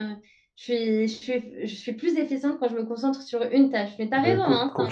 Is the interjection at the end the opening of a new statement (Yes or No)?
Yes